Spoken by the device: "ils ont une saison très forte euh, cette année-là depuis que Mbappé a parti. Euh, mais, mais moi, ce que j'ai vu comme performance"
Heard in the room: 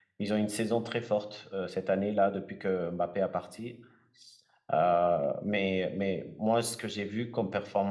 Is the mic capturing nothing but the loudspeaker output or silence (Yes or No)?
Yes